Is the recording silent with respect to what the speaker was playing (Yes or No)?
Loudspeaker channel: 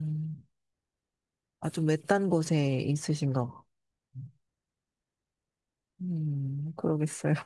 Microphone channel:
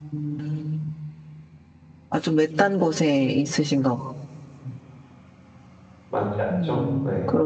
No